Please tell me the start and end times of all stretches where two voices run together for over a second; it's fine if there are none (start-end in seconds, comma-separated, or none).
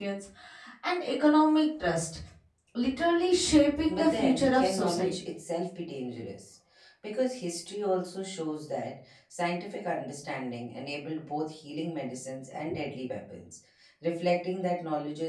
3.9-5.1